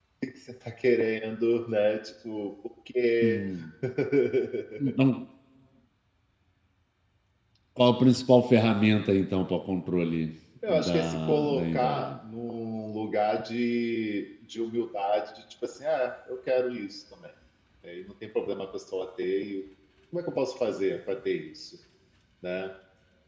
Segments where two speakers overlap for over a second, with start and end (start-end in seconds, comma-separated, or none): 10.7-12.1